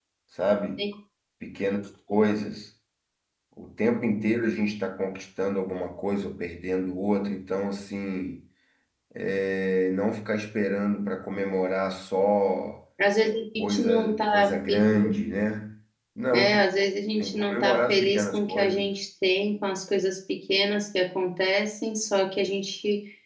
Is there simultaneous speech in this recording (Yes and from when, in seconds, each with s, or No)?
Yes, from 13.6 s